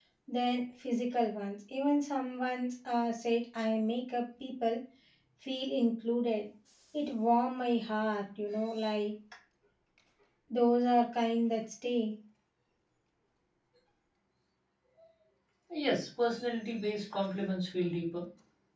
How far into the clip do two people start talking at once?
none

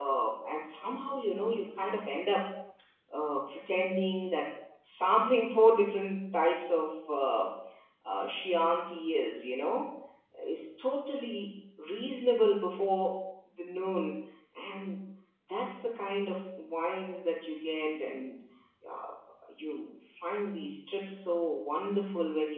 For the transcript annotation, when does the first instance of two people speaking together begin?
none

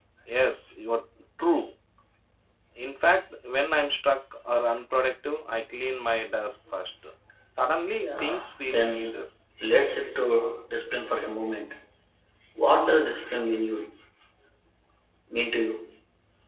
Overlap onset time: 8.0 s

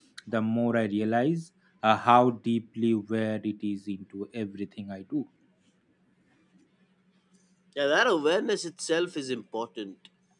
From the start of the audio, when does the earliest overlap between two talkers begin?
none

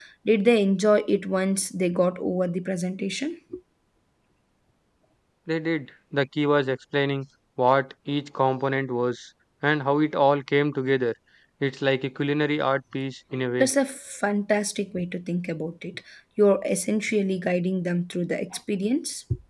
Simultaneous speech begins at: none

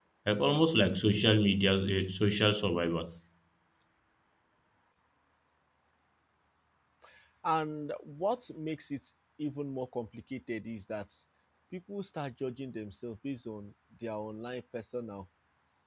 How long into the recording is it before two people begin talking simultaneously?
none

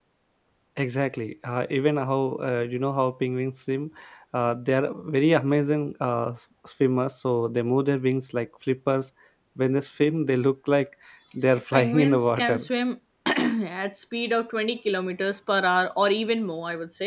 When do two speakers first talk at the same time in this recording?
11.4 s

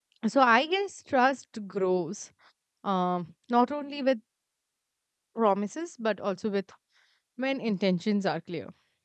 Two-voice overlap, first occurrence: none

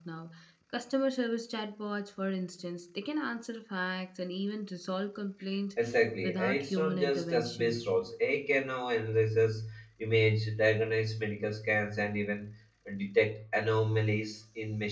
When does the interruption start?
6.2 s

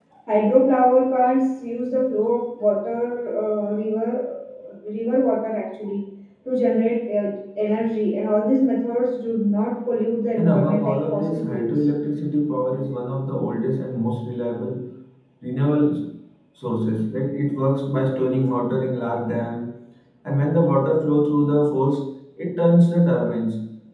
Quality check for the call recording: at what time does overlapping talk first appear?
10.4 s

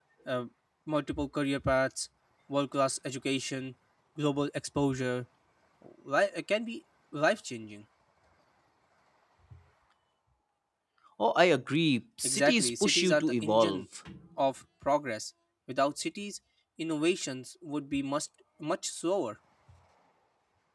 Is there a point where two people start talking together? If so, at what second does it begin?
12.2 s

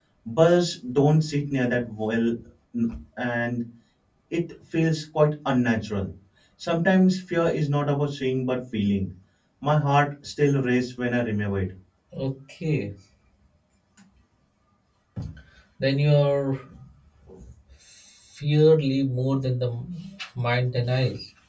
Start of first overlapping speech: none

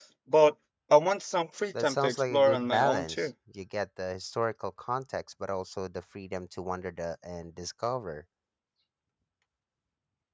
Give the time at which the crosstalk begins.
1.7 s

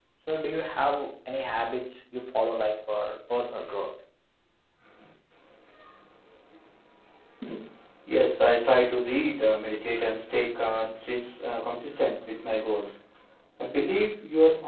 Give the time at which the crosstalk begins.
none

